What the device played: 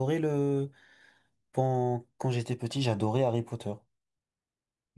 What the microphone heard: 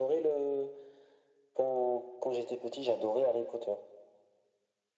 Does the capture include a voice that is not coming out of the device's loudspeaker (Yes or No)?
No